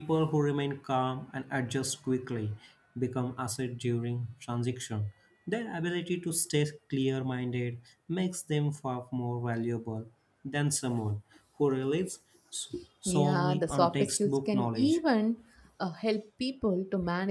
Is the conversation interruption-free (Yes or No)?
No